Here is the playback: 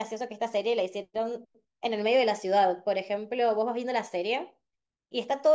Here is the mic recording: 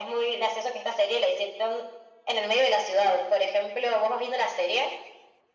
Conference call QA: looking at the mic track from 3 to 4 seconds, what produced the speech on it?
echo only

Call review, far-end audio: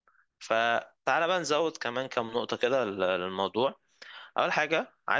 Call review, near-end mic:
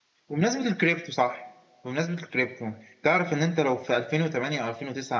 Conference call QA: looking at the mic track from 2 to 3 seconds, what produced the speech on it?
user only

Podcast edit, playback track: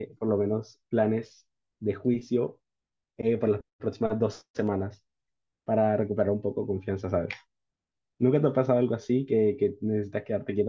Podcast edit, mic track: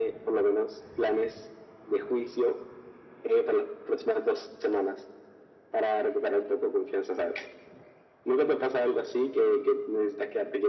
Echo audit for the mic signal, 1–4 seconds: echo only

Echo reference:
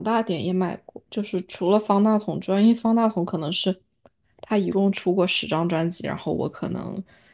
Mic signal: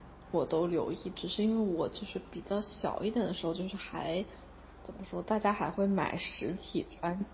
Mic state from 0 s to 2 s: user only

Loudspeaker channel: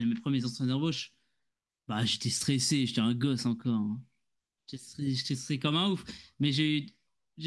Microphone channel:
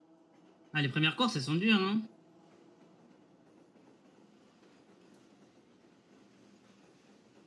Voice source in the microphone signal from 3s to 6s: neither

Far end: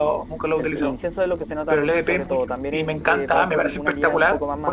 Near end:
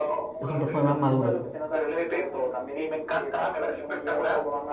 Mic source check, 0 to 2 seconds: both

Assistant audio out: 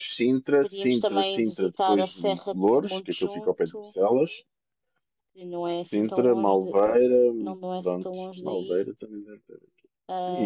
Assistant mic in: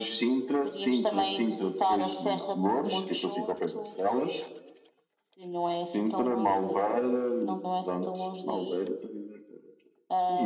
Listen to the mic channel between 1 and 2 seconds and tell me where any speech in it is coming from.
echo only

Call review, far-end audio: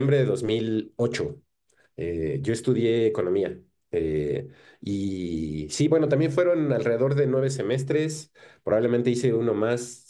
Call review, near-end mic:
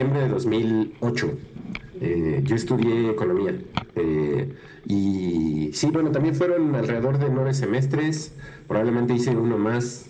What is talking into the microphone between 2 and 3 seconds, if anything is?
both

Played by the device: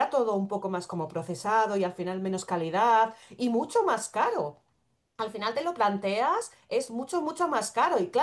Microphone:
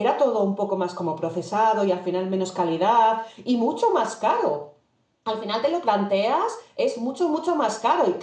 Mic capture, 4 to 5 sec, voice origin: echo only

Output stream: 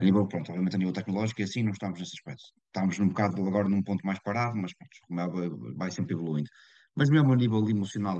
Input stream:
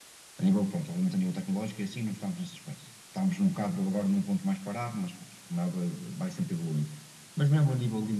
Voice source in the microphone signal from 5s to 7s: echo only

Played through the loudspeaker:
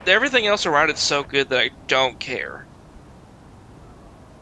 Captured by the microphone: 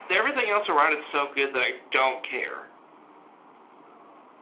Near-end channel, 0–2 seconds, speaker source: echo only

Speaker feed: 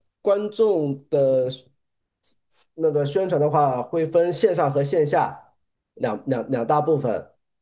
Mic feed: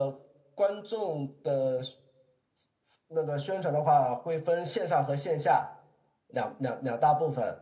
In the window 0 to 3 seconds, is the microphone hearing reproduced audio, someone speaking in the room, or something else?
echo only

